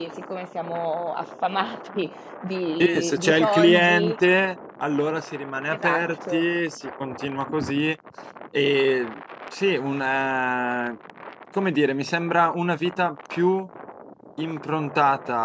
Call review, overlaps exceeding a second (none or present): present